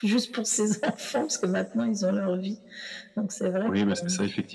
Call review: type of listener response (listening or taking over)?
taking over